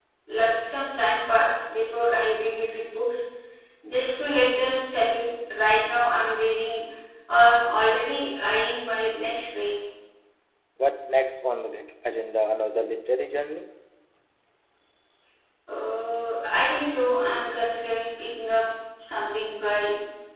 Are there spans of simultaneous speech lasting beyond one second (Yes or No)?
No